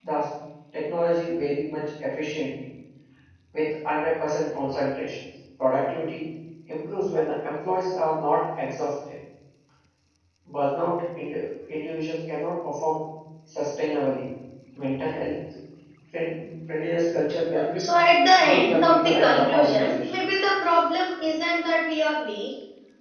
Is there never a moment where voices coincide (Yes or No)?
No